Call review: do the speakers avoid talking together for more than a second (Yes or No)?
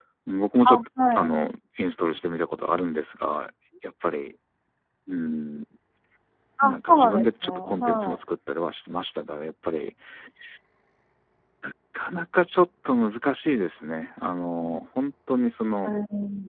No